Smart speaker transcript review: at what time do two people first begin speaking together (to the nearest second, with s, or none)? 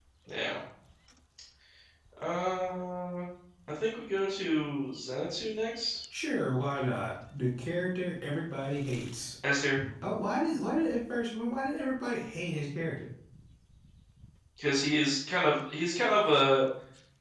none